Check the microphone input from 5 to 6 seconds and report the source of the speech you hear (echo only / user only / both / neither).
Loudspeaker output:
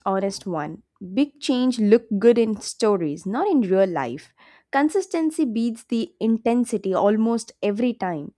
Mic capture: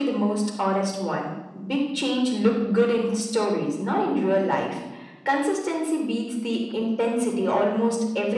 echo only